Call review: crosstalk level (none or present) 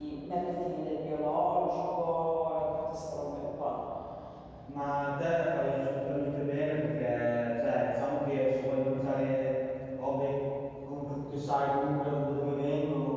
none